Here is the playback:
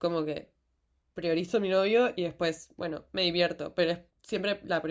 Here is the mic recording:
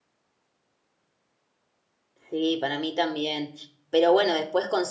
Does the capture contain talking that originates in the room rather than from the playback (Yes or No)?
Yes